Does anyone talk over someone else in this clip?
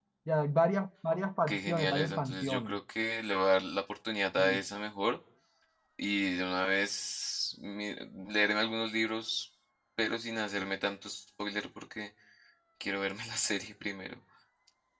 Yes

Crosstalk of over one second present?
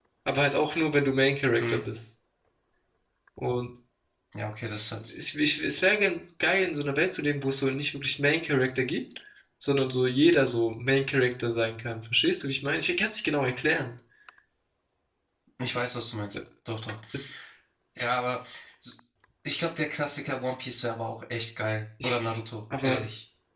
No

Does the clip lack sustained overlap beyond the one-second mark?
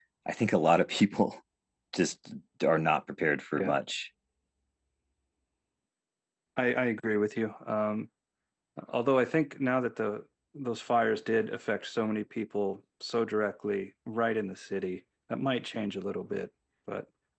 Yes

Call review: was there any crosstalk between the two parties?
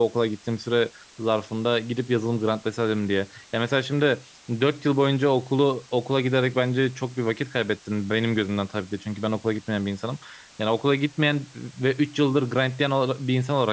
No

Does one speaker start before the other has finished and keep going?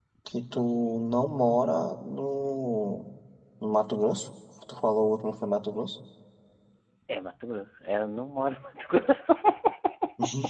No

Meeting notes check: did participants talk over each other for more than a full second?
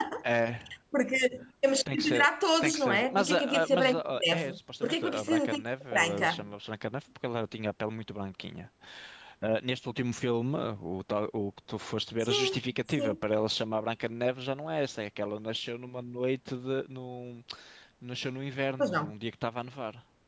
Yes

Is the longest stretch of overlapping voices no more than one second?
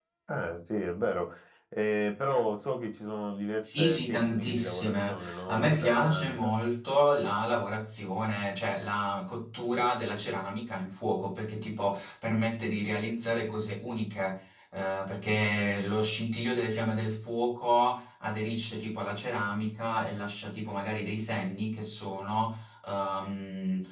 No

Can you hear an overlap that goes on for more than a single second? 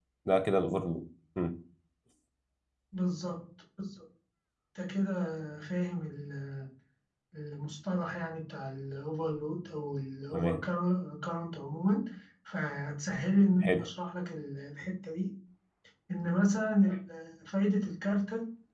No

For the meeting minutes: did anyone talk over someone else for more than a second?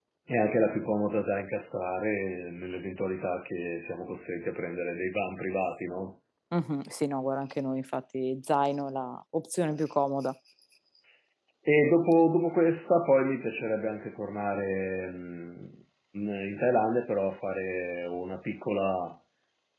No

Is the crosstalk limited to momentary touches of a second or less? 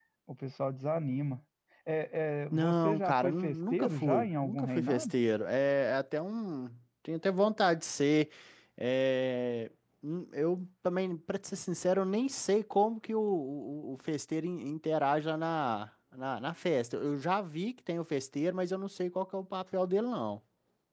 No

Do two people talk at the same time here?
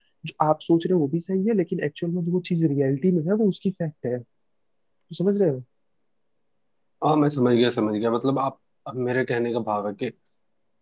No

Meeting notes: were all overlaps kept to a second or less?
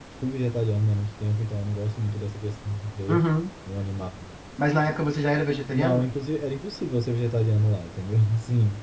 Yes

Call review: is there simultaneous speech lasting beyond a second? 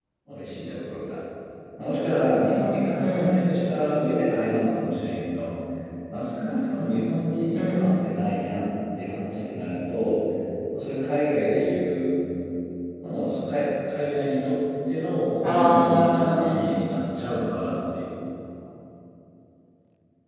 Yes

